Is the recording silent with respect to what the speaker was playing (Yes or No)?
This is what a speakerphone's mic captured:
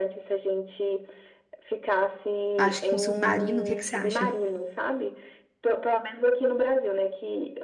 No